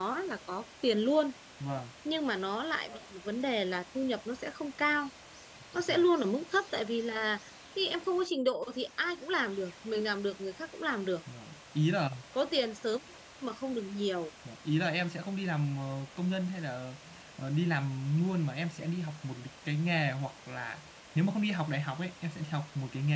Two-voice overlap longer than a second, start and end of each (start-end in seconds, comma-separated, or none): none